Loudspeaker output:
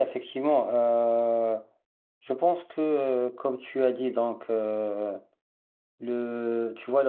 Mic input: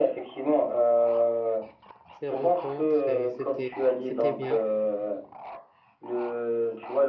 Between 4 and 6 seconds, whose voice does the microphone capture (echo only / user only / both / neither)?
both